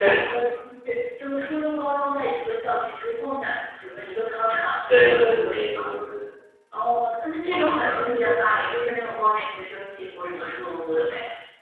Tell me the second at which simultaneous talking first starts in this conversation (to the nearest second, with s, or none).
5 s